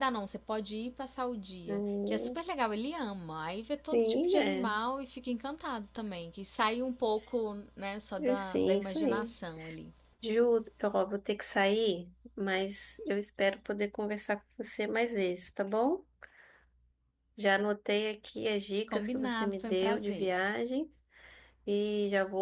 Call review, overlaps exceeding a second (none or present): present